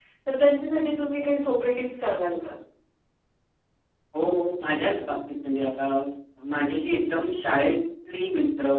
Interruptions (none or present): none